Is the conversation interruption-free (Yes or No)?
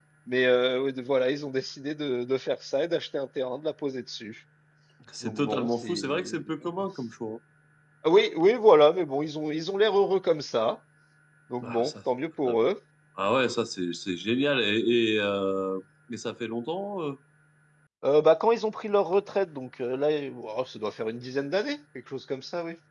No